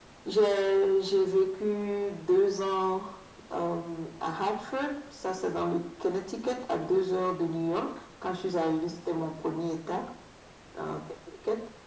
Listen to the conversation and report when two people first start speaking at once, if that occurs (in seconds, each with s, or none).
none